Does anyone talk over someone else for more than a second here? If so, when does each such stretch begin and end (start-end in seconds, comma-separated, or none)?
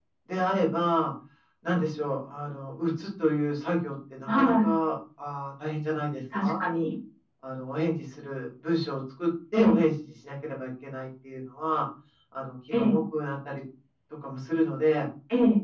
none